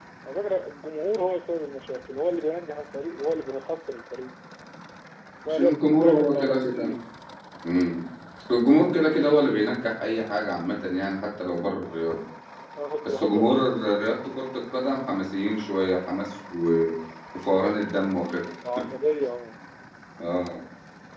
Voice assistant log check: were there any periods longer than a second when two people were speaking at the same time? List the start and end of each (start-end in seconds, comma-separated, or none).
5.4-6.9